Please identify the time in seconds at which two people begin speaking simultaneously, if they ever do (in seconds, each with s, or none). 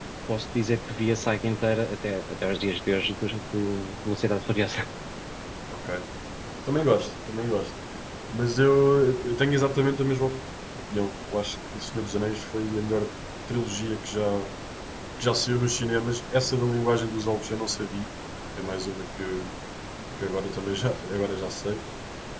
none